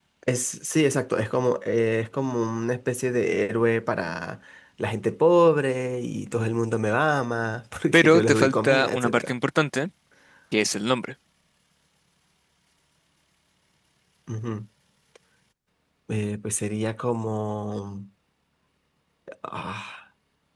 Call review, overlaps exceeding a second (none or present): present